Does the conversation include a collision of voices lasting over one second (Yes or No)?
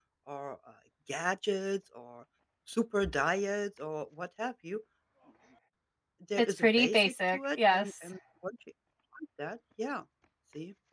Yes